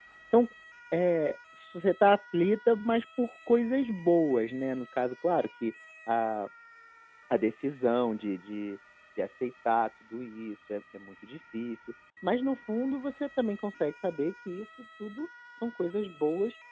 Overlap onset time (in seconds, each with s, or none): none